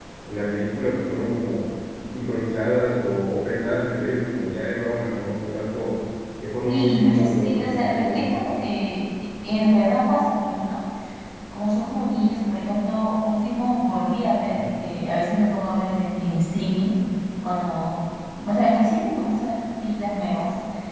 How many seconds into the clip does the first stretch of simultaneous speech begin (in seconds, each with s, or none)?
6.7 s